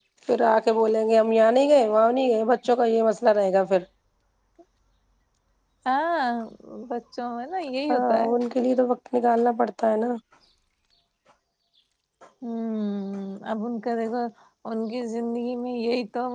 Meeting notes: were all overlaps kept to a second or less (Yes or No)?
Yes